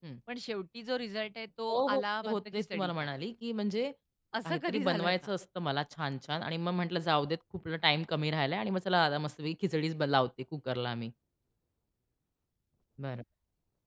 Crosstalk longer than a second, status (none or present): present